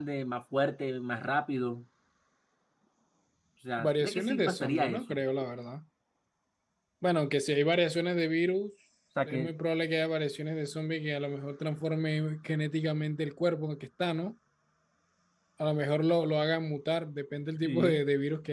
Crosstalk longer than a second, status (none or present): present